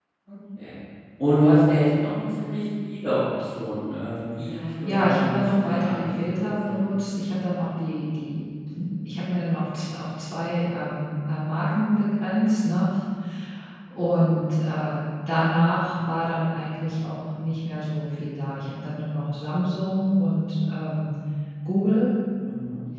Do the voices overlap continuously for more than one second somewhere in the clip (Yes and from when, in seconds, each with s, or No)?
Yes, from 4.8 s